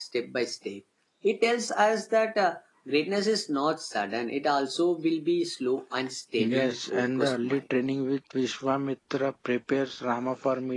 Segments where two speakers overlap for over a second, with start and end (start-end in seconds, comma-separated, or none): 6.4-7.6